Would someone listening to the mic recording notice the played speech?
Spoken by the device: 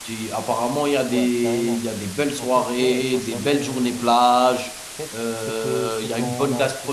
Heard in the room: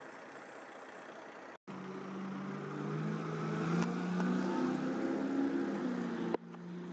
No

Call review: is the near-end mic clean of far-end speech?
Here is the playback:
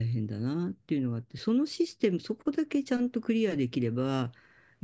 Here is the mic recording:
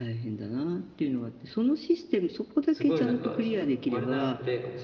No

